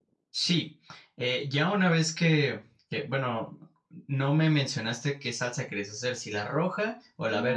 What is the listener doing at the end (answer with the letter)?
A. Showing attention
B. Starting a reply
B